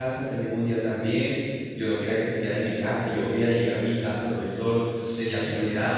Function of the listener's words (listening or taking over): taking over